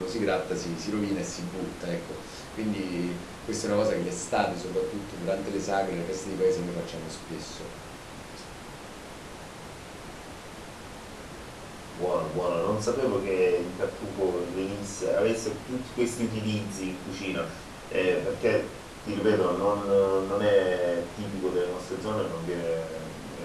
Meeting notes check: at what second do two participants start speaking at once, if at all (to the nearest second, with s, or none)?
none